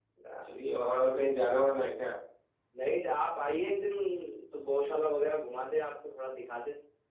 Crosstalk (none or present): none